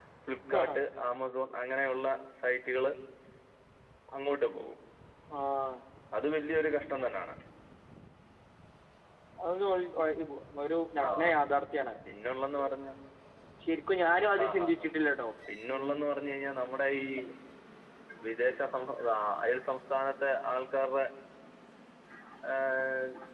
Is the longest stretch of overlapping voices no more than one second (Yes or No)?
Yes